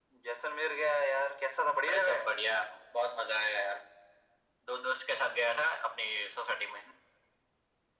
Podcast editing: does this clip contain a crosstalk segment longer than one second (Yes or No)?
No